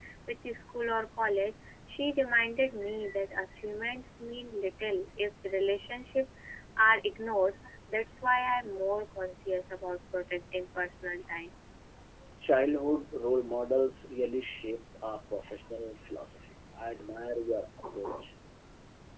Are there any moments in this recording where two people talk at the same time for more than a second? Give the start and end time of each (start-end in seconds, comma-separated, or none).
none